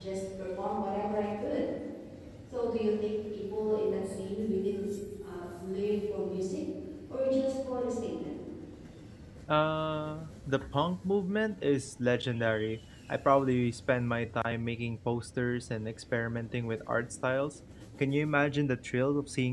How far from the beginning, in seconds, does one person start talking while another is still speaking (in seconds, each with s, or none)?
none